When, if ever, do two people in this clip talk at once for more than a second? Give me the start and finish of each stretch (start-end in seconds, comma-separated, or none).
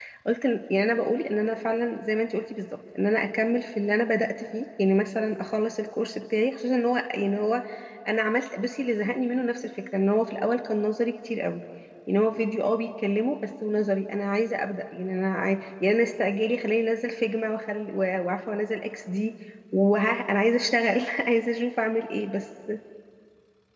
none